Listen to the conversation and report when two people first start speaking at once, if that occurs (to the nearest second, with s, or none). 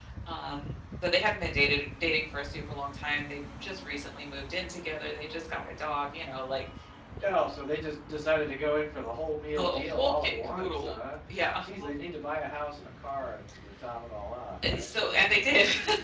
10 s